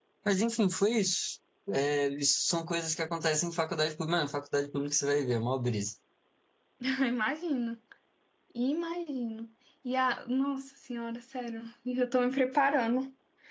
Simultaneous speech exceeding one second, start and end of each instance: none

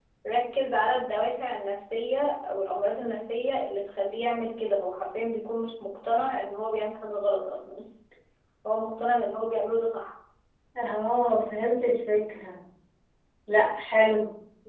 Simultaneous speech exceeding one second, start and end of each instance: none

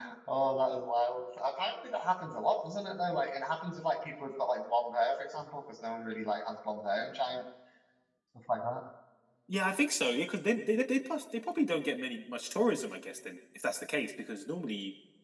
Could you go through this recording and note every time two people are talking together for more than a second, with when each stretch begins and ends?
none

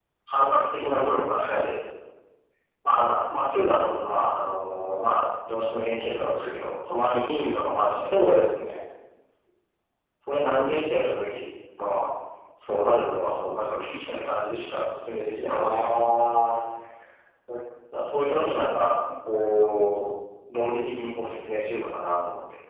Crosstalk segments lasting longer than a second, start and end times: none

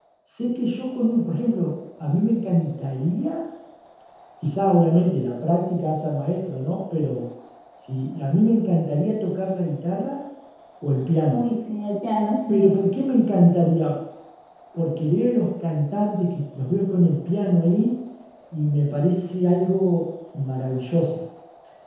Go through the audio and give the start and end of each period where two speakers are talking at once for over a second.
none

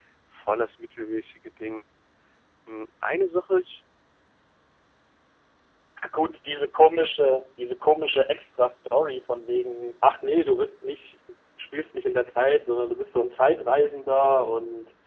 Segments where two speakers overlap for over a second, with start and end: none

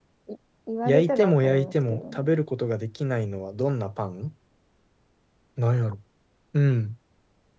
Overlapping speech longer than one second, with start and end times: 0.8-2.4

